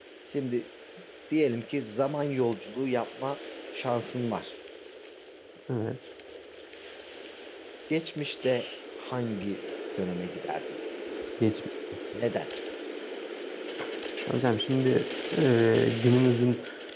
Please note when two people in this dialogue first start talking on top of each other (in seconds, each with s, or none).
none